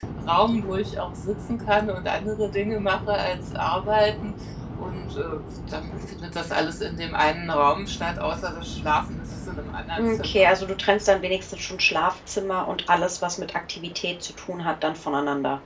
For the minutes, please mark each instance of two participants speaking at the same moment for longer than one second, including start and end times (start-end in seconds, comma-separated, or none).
none